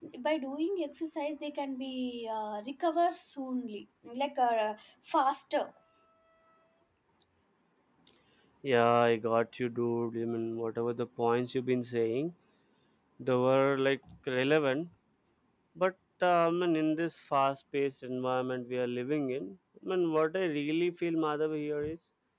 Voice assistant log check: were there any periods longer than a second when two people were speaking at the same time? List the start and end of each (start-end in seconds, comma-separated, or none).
none